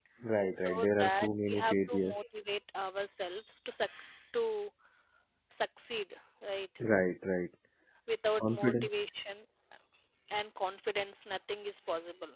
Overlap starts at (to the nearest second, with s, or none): 1 s